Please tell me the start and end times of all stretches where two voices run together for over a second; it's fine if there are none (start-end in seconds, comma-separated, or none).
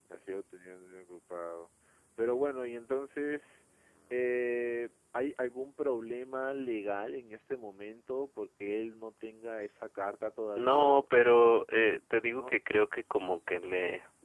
none